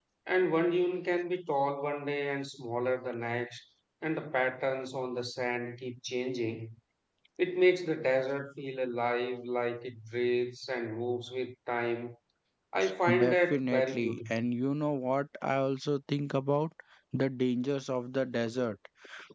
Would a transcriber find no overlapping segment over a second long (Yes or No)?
No